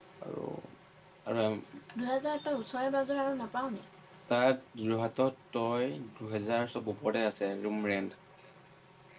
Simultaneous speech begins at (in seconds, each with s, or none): none